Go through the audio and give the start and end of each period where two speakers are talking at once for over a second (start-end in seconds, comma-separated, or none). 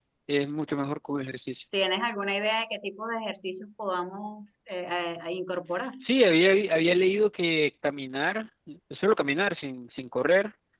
none